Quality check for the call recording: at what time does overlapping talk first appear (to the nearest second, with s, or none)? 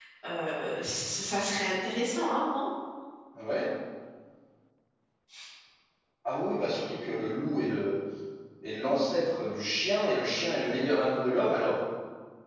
none